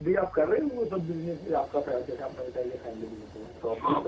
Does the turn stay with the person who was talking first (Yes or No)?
No